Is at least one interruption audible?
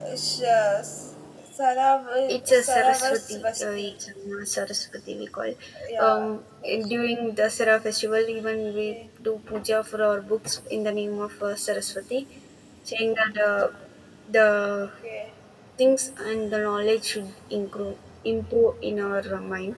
Yes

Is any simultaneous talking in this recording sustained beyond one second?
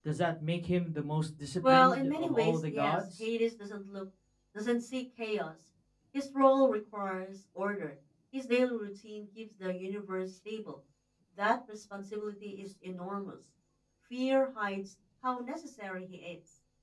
Yes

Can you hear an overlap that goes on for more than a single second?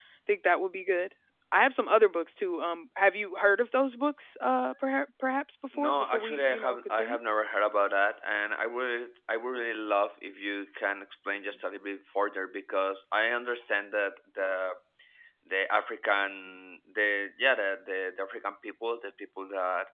Yes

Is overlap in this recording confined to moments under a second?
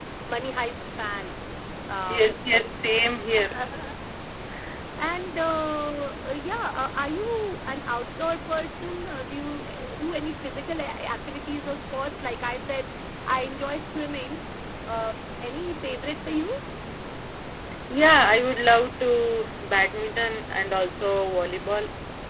Yes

